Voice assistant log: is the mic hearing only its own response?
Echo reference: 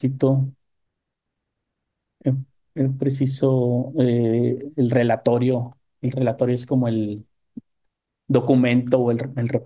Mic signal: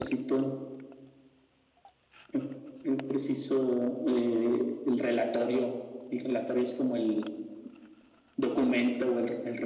Yes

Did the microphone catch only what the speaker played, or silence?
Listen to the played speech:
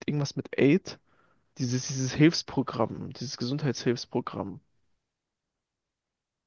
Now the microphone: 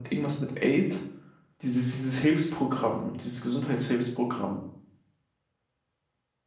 Yes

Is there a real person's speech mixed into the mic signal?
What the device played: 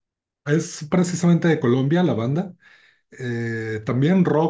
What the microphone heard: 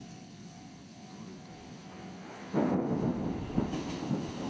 No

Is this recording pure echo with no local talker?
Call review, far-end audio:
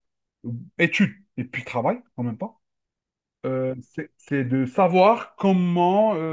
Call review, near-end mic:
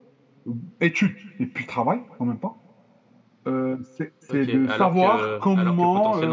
No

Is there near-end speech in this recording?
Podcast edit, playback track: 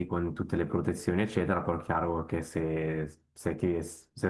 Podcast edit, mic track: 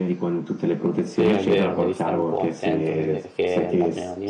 Yes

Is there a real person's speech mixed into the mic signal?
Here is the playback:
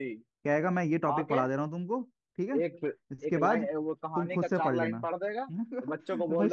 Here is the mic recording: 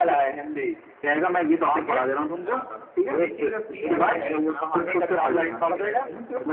Yes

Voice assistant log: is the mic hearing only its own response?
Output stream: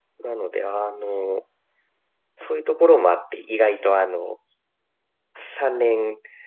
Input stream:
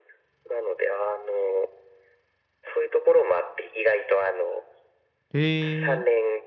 No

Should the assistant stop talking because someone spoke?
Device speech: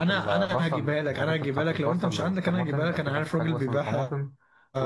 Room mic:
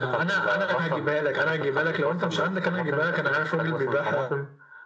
No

